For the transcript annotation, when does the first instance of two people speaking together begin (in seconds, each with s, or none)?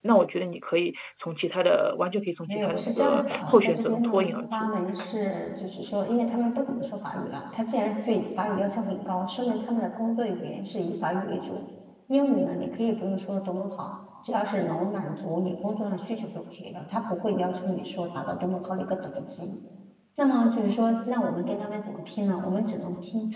2.5 s